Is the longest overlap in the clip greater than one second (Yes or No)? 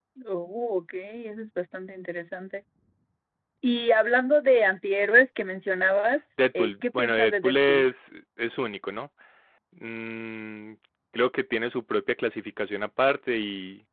Yes